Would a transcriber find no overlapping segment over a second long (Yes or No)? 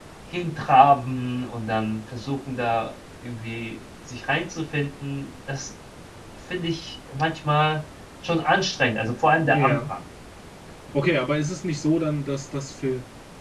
Yes